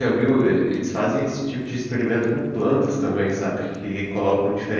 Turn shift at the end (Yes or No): No